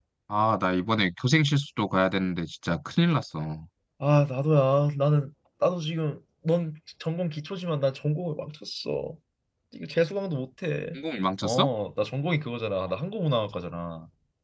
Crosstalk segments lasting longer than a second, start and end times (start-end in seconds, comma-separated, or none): none